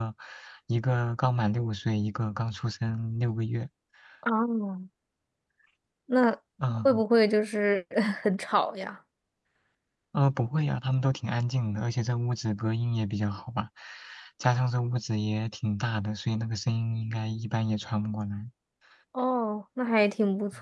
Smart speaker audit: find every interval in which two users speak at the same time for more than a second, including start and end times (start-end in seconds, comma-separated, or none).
none